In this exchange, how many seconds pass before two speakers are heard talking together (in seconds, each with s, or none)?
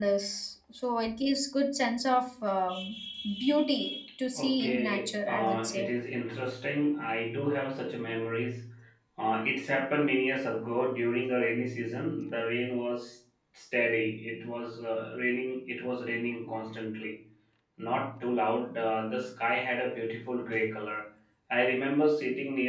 4.3 s